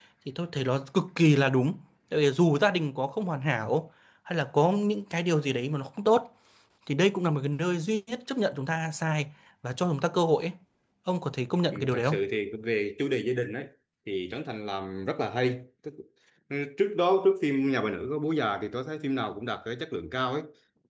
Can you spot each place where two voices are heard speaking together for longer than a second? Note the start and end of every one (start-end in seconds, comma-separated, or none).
none